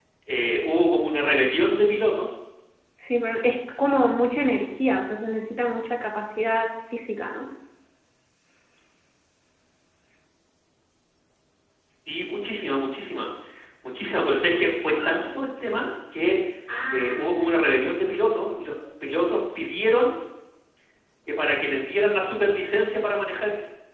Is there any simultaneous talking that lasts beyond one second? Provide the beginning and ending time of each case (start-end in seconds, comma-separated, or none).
none